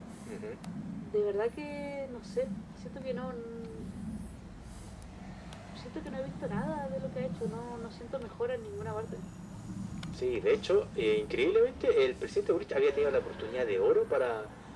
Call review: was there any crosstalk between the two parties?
No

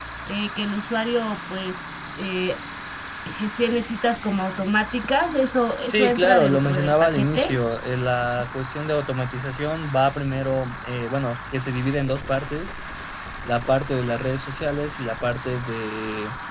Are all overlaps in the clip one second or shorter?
No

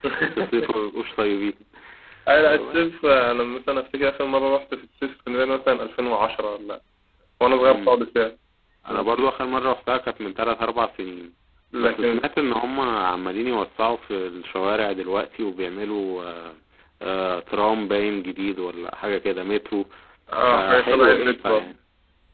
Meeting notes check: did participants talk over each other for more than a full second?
Yes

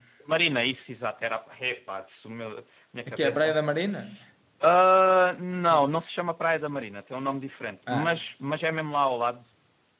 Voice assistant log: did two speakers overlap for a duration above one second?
No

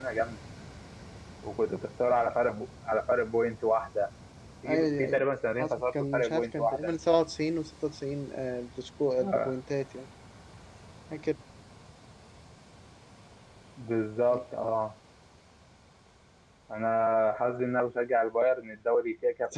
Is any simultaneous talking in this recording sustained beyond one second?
Yes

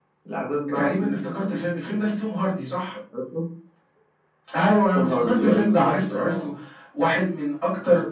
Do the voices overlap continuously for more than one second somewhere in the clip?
Yes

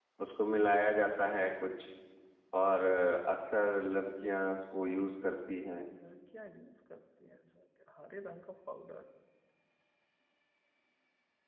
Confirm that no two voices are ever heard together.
Yes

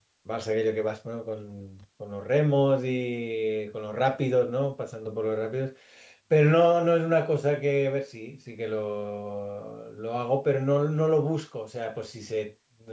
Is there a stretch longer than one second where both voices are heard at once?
No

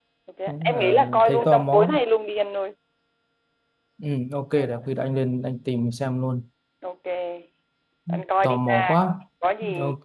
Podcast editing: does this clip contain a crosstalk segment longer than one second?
Yes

